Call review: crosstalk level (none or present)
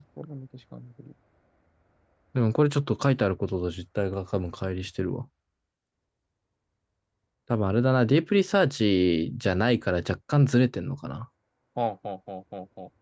none